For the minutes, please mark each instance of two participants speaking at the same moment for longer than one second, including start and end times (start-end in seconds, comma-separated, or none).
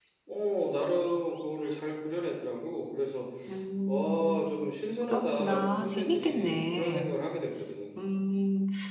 5.1-7.1